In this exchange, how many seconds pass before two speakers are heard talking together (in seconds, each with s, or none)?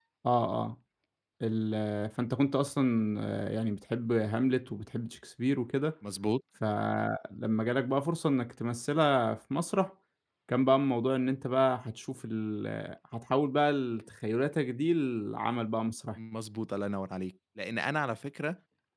none